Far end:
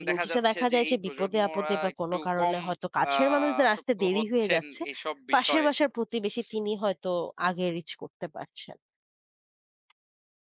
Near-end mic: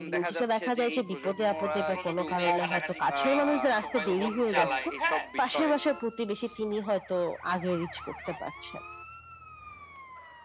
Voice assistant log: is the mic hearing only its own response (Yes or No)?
No